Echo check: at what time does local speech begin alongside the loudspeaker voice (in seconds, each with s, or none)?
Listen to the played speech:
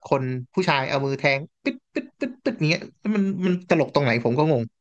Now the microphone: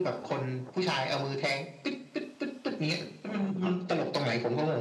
3.6 s